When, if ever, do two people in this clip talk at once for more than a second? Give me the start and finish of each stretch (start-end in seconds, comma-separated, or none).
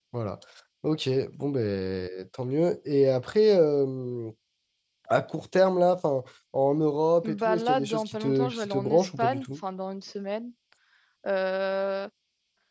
7.2-9.5